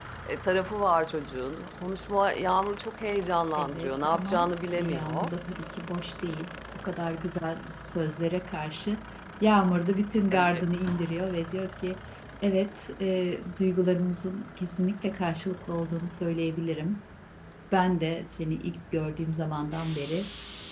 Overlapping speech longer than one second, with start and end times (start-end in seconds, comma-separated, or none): 3.6-5.3